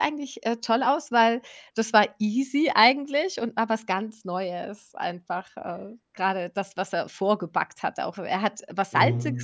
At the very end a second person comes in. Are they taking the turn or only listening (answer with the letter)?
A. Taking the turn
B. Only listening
B